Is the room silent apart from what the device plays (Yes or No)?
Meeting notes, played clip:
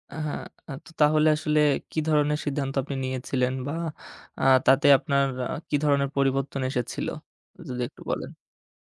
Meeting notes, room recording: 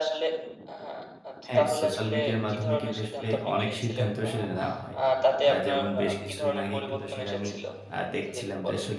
No